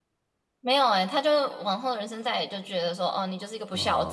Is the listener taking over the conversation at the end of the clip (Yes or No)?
Yes